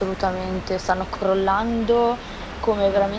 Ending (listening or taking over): listening